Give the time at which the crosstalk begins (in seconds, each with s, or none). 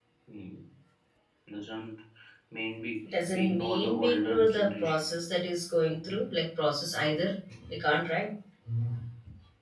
3.1 s